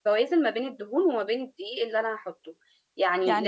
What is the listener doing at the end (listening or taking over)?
listening